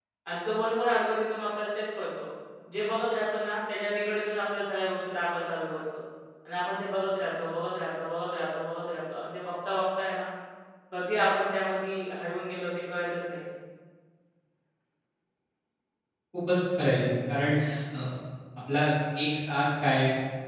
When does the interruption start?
none

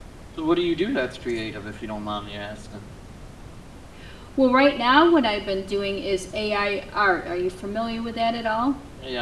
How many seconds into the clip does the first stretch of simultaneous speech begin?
none

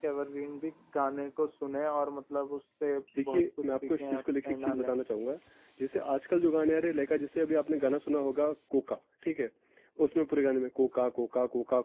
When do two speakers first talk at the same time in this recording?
3 s

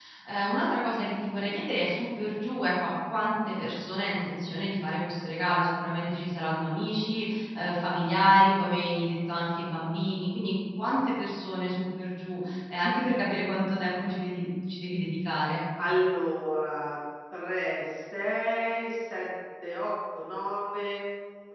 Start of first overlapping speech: none

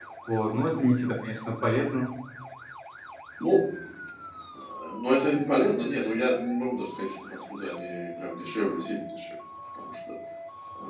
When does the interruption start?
none

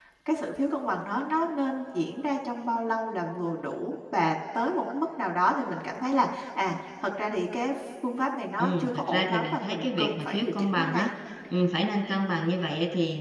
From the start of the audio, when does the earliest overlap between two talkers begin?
9 s

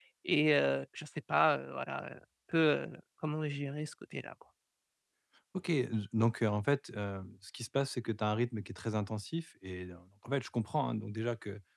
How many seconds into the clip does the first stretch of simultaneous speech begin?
none

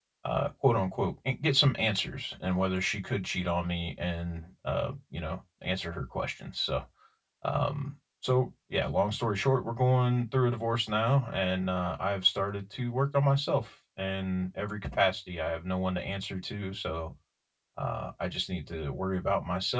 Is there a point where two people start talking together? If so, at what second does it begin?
none

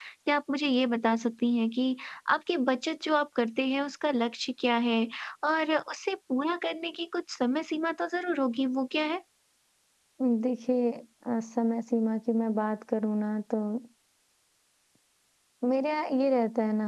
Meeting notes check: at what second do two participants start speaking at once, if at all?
none

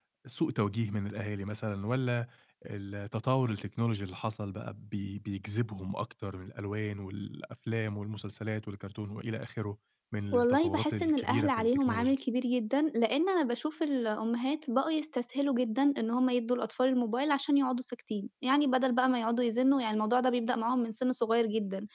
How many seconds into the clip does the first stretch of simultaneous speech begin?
10 s

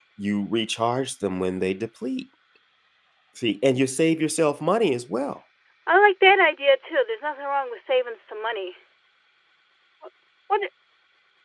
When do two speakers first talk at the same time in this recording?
none

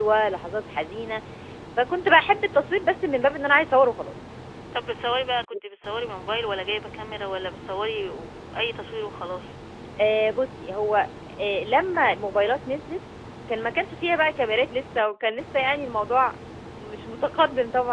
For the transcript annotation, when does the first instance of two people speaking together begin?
none

